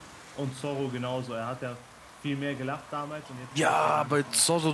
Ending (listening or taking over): taking over